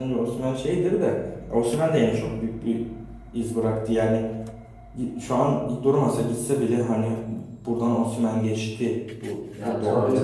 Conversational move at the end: taking over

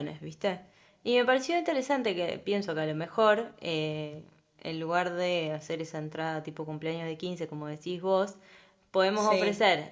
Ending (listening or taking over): listening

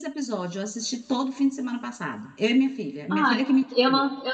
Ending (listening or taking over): taking over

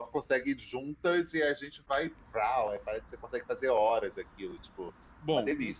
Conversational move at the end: taking over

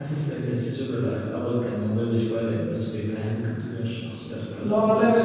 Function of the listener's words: taking over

